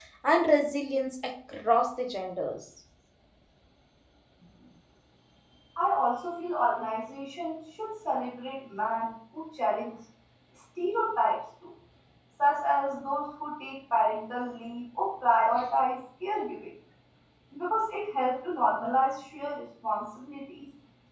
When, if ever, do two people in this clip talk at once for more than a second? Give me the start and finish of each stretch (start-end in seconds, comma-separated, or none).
none